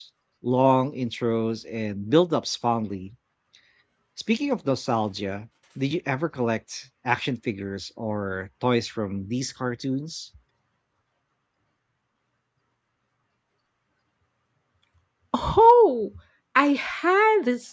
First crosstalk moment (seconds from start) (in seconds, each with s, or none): none